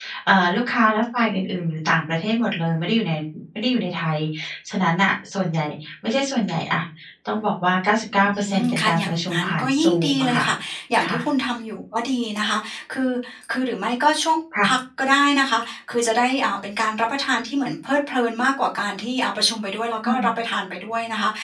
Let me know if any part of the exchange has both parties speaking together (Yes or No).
Yes